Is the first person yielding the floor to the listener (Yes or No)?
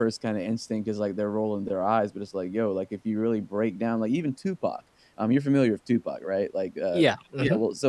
No